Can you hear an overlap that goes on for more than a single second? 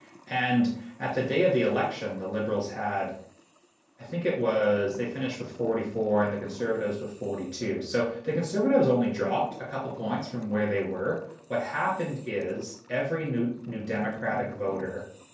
No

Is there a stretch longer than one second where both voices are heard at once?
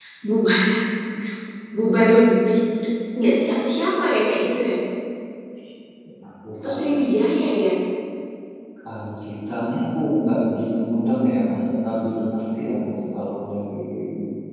No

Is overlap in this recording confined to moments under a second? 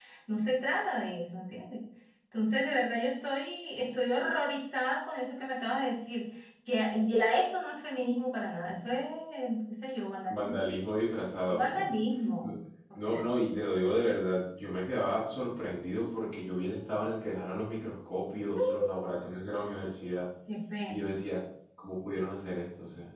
Yes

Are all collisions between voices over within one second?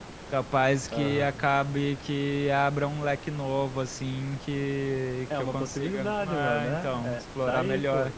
No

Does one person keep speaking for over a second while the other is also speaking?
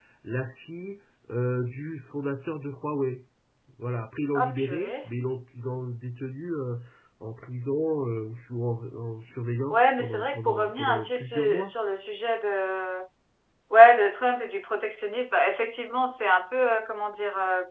Yes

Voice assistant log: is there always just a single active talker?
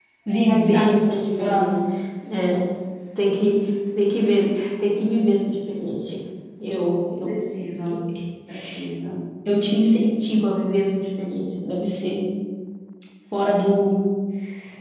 No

